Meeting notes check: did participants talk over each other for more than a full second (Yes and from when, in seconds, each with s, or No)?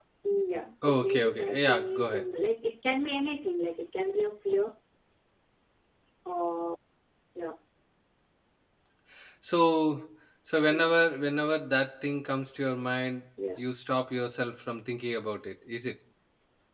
Yes, from 0.8 s